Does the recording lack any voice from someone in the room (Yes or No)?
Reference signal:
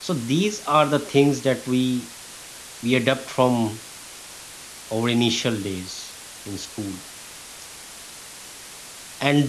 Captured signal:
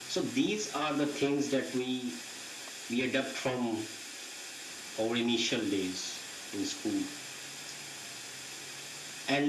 Yes